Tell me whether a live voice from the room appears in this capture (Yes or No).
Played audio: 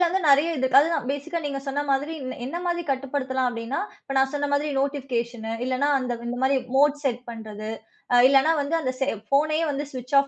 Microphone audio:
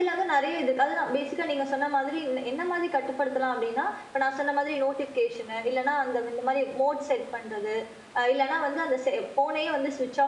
No